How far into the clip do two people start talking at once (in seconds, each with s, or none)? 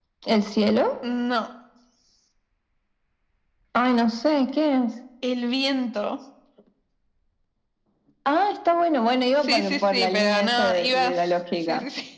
9.3 s